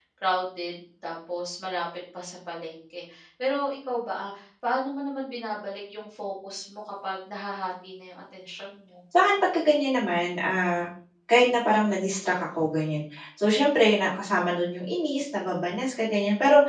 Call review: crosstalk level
none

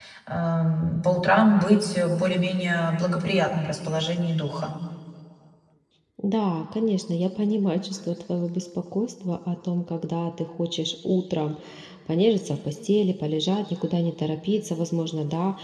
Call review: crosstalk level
none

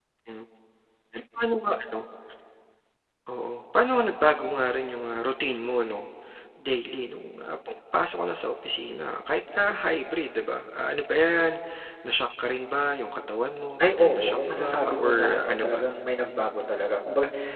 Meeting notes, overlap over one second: present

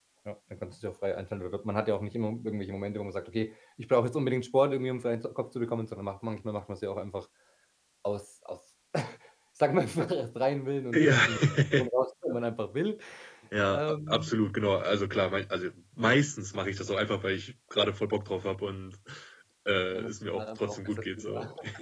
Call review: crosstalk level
present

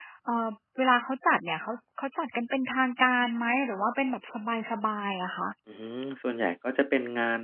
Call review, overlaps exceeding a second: none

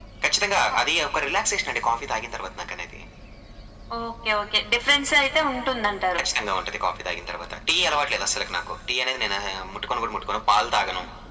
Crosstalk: none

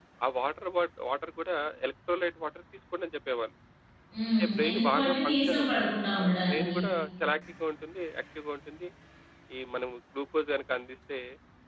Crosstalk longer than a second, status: present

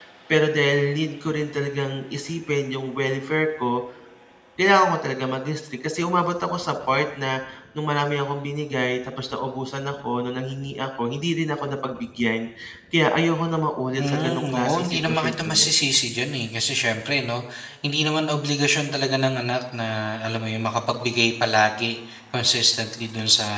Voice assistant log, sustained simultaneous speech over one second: present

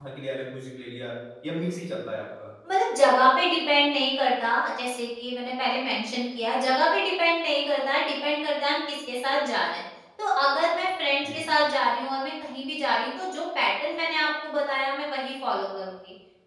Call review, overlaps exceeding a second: none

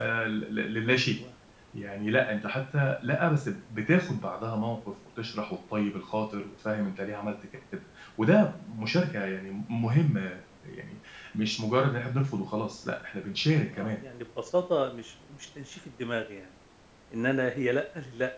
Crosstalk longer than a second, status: none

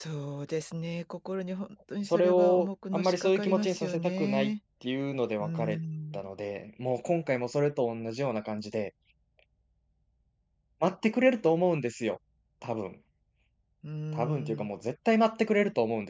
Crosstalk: present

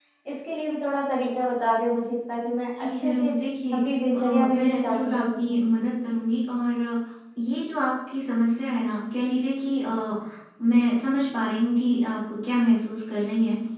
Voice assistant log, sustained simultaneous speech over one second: present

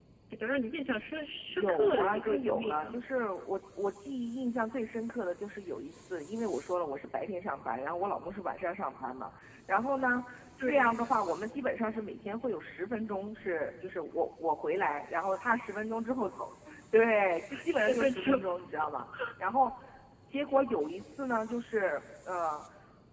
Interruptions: present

